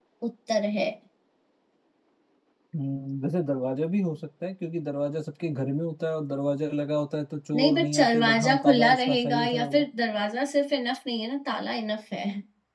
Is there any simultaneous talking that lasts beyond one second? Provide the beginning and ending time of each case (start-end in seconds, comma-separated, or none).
7.5-9.8